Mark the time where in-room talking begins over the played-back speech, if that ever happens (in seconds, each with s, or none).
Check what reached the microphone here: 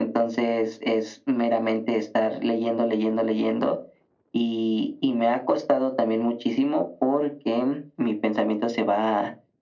none